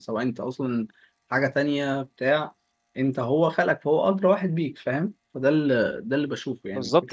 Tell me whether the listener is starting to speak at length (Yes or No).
Yes